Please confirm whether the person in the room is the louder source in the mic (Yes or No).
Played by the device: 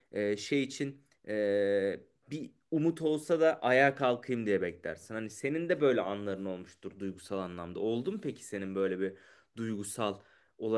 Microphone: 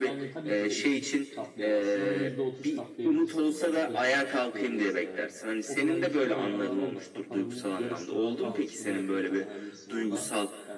No